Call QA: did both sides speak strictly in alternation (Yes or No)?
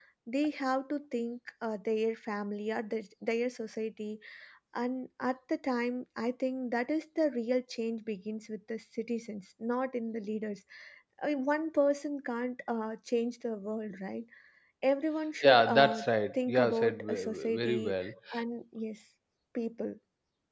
No